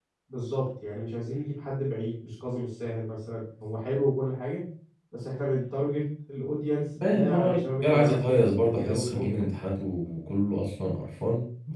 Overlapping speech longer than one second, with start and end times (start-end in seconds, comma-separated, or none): 7.1-9.4